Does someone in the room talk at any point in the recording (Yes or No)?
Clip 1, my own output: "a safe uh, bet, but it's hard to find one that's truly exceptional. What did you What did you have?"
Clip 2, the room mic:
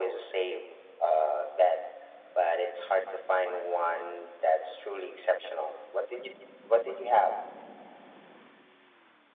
No